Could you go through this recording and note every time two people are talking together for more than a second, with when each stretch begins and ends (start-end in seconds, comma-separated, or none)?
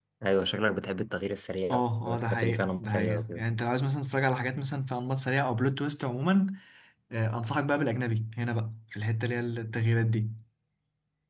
1.7-3.4